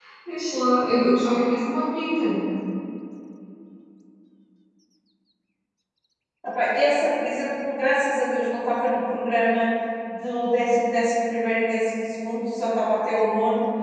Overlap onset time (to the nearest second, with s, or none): none